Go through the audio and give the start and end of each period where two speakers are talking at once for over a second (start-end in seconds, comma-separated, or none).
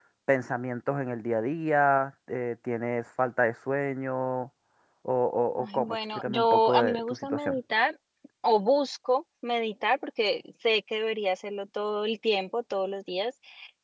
5.5-7.6